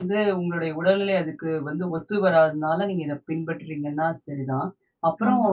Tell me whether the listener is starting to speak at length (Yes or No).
No